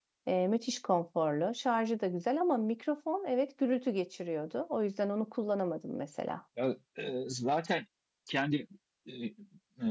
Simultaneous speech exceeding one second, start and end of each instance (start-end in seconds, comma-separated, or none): none